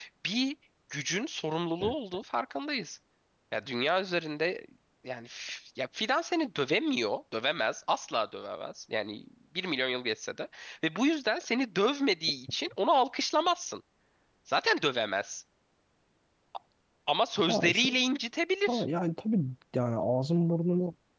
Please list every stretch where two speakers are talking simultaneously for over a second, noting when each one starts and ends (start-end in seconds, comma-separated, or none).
none